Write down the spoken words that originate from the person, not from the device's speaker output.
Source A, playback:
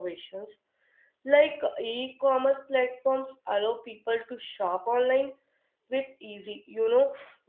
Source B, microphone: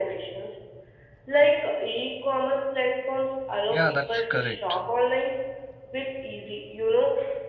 yeah that's correct

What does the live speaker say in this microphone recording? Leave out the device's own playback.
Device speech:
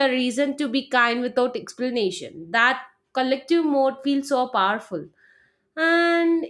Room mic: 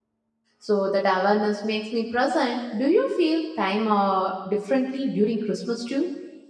So that awareness makes me present. Do you feel time uh, differently during Christmas too?

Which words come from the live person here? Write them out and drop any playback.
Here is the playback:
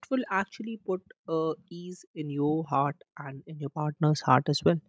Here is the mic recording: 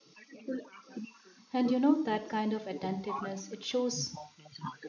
And you know, that kind of attentiveness, it shows

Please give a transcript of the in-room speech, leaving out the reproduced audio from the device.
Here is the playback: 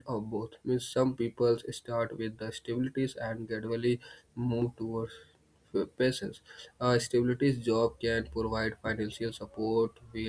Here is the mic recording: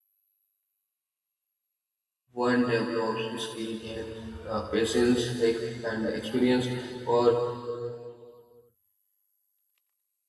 one develops skill gain uh, patience ex- and experience or

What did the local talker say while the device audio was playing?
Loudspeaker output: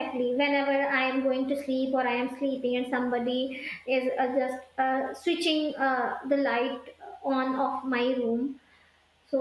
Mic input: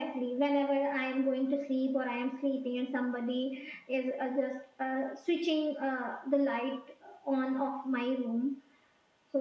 none

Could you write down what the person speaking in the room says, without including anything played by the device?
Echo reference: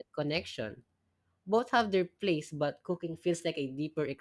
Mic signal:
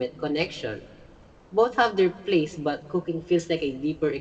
none

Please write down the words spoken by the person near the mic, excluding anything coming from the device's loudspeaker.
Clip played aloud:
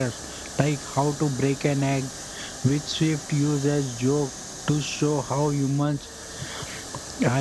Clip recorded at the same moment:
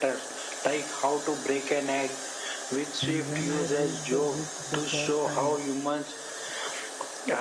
and when I read the book the first time,

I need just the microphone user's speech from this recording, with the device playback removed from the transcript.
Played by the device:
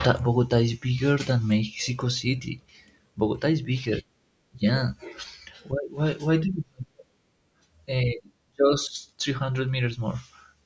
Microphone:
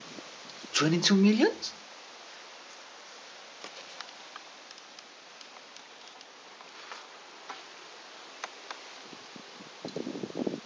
22 millions?

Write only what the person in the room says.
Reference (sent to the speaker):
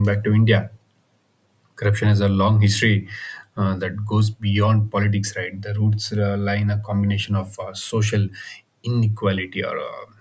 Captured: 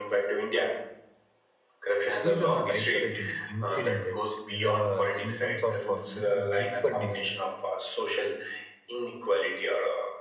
These are not isolated incidents, I would say. These are uh, symptoms of um, deeper disease

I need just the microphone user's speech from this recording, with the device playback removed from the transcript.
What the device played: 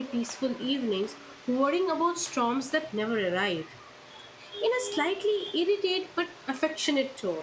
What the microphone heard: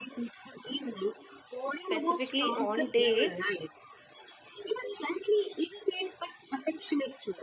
specifically on day

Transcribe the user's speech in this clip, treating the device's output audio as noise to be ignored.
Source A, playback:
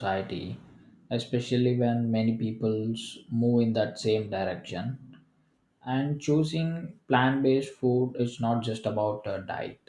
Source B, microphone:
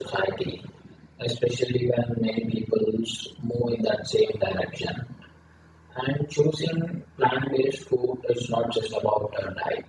none

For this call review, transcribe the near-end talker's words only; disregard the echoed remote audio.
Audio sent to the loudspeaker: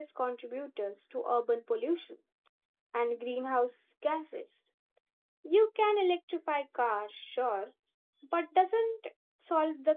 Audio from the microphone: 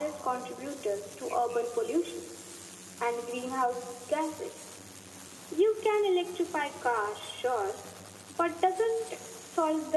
none

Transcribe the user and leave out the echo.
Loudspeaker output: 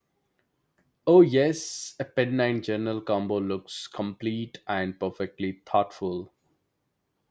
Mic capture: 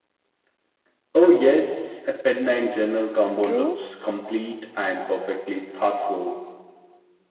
True,

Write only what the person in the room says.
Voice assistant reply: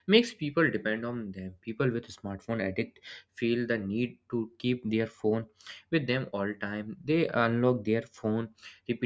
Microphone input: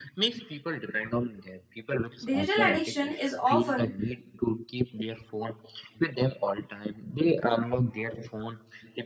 digital addiction is often

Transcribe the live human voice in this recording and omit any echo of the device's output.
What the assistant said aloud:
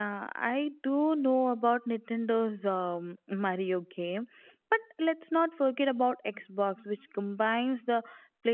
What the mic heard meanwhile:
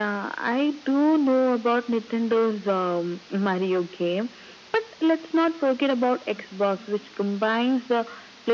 none

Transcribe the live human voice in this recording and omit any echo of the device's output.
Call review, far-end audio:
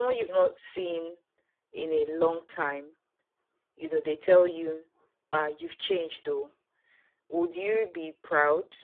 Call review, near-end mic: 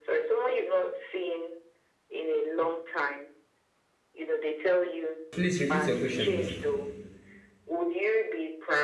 Please repeat your question again.

